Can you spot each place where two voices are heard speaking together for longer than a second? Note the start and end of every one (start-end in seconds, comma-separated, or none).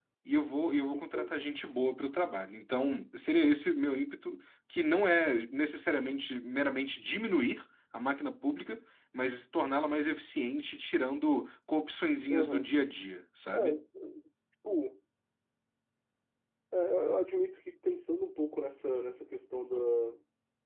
none